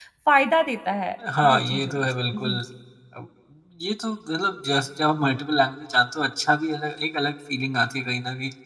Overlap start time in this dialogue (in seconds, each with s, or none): 1.2 s